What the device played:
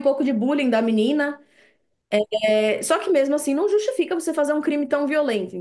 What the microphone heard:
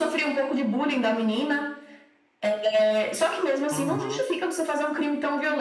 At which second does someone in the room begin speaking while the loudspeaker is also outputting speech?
3.7 s

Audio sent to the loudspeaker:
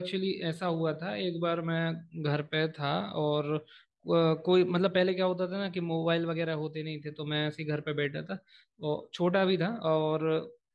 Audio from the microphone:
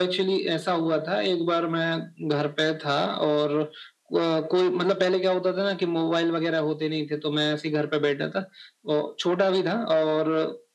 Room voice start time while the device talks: none

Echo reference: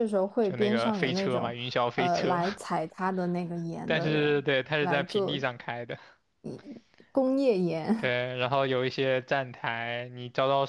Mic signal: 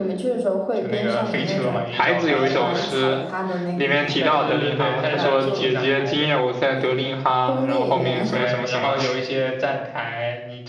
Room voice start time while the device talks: 1.4 s

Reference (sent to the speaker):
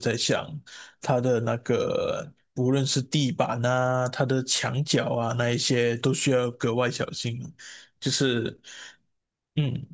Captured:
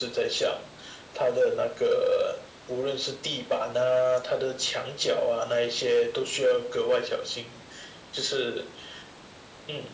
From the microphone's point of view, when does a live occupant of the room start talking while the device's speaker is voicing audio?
none

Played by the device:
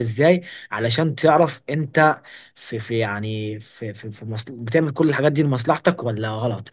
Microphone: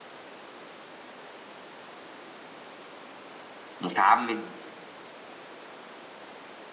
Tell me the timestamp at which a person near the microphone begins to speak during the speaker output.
3.8 s

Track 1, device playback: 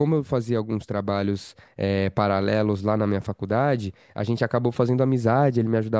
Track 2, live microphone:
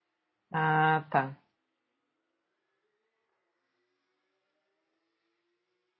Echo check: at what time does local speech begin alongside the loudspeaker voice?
0.5 s

